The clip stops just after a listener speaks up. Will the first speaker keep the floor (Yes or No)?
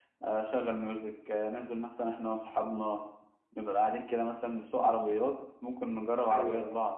Yes